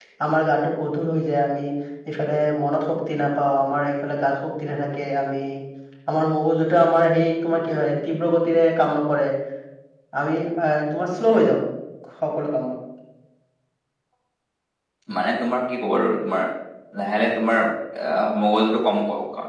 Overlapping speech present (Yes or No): No